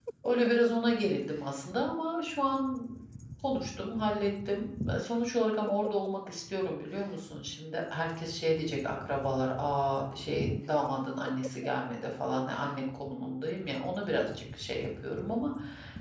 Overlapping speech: No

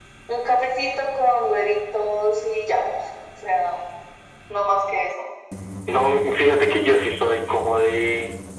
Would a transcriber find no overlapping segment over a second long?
Yes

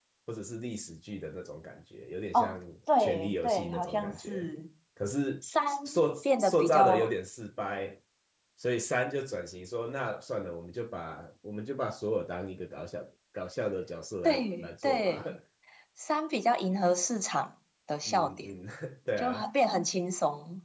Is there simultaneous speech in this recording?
Yes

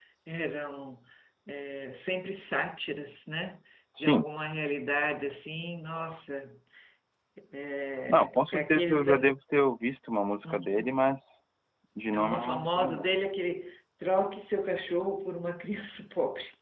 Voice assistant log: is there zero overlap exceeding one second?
No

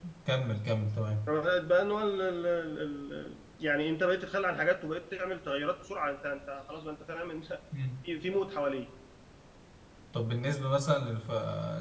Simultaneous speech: No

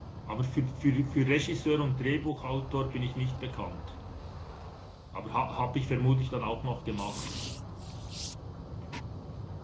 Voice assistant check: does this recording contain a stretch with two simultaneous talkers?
No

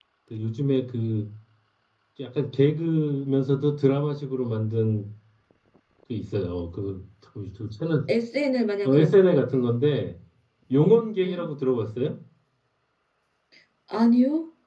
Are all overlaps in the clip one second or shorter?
Yes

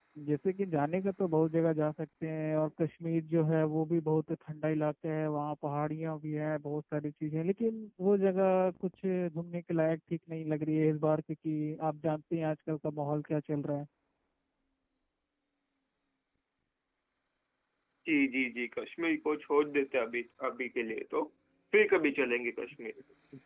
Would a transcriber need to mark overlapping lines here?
No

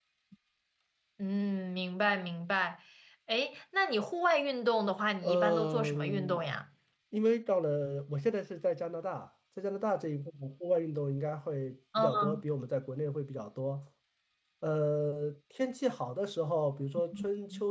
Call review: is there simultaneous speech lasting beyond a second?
Yes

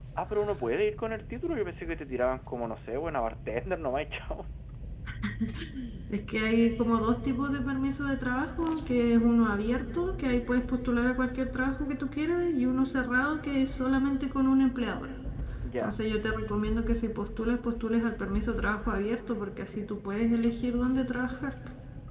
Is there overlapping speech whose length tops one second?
No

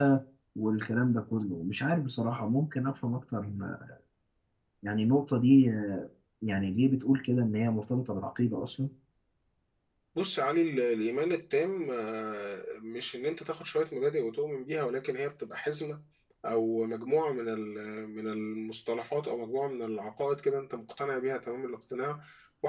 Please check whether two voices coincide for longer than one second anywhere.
No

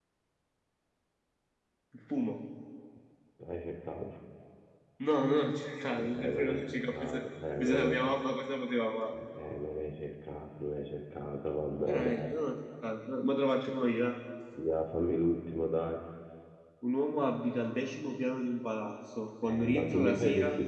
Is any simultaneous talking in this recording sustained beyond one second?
Yes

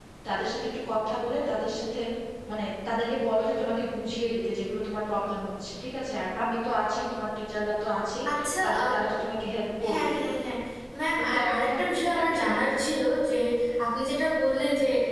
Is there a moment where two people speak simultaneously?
Yes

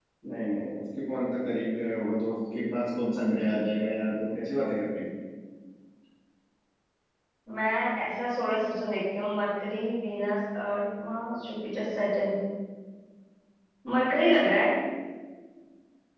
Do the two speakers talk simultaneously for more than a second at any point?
No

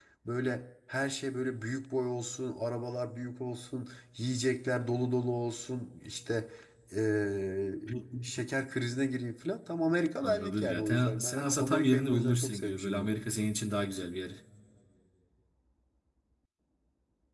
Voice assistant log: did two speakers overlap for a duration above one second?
Yes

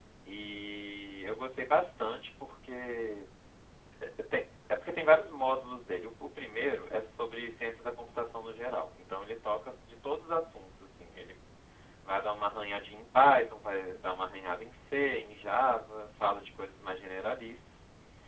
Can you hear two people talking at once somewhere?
No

